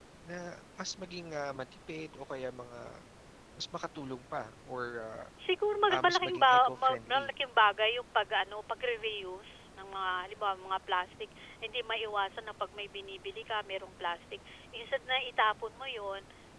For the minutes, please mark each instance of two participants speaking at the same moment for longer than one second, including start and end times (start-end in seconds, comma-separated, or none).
5.9-7.3